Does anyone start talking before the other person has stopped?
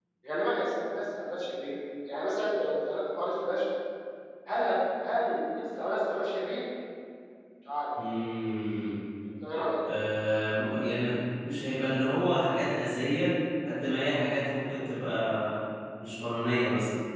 No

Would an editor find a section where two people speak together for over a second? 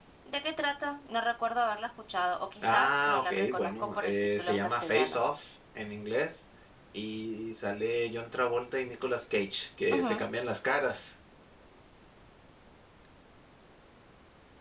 Yes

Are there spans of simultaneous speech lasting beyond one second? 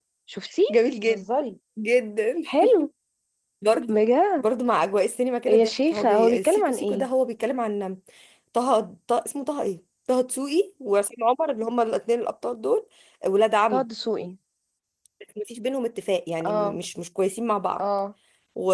Yes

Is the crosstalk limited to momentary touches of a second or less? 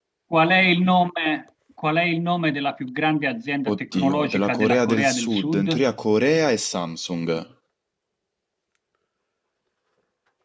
No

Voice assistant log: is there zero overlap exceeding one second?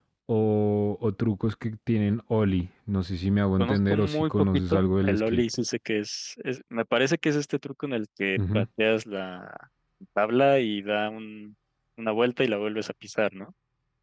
No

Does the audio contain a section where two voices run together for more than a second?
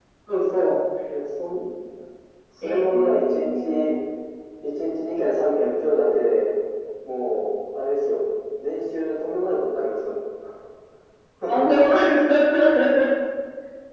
Yes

